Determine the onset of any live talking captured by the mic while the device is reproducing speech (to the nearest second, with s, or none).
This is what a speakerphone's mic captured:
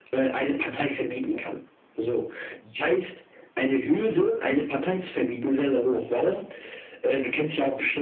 none